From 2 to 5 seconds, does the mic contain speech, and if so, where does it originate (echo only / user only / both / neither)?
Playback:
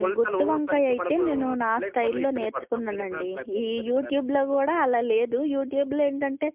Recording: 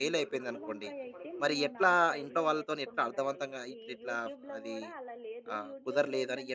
both